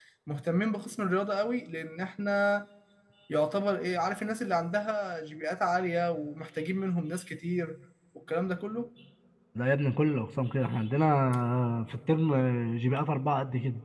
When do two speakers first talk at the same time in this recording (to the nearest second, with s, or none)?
none